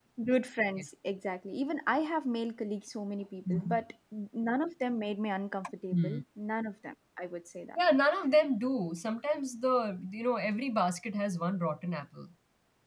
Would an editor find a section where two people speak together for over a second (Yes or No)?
No